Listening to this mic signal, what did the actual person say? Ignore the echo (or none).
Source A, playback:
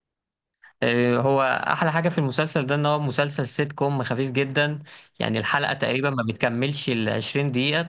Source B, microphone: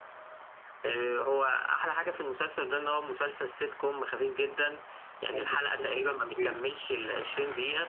مخلص مسلسل اسمه ديف